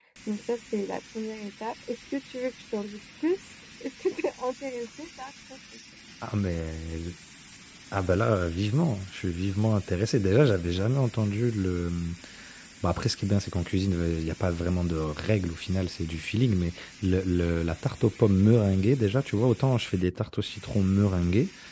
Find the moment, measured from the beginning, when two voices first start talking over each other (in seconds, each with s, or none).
none